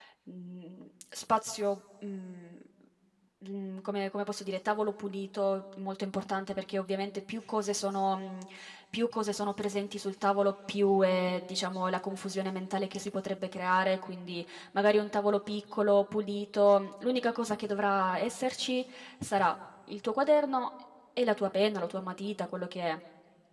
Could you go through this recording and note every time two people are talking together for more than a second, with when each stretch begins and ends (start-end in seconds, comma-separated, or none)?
none